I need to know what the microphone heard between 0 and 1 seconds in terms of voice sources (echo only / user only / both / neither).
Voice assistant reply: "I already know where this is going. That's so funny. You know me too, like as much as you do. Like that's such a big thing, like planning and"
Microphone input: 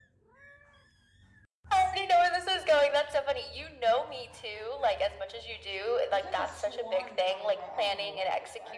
neither